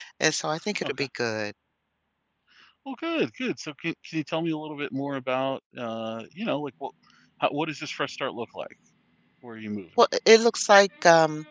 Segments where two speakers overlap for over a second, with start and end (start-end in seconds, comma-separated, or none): none